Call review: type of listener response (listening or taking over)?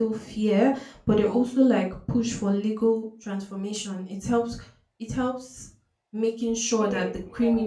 listening